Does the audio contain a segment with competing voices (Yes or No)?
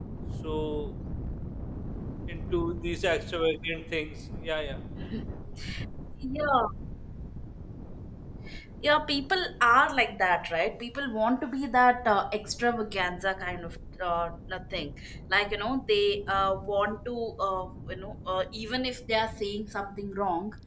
No